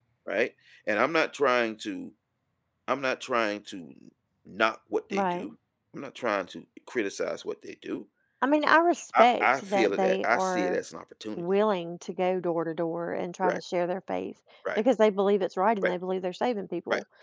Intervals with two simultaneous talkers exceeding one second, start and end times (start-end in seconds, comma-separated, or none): 9.2-10.8